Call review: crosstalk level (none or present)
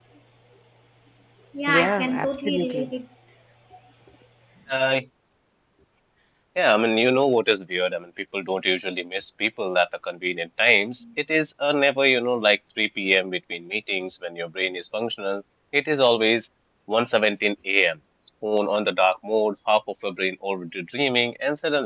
present